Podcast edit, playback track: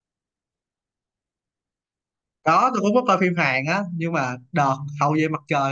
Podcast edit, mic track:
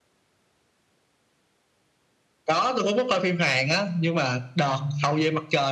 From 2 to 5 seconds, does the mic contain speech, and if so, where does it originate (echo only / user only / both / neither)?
echo only